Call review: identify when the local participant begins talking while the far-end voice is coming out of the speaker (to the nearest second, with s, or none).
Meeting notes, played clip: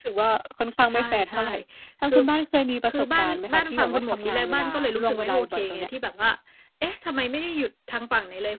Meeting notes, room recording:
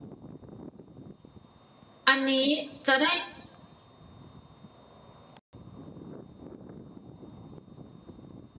2 s